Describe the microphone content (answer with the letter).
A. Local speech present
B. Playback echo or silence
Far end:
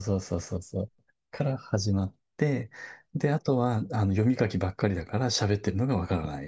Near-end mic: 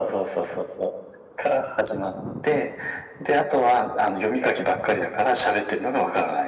B